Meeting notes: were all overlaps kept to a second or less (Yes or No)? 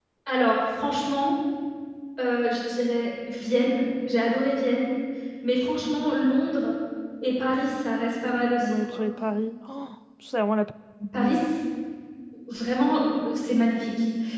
Yes